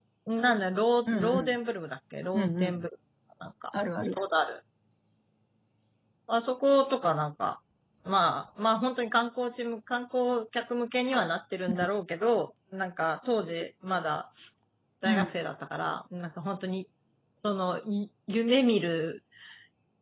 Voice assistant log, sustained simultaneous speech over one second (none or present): none